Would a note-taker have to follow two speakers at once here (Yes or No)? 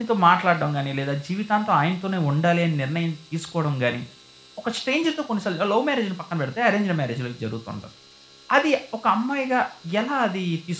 No